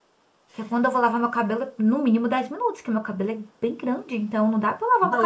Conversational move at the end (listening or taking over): taking over